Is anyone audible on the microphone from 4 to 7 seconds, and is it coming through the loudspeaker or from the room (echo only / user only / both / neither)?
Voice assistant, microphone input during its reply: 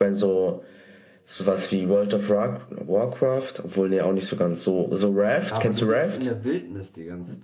both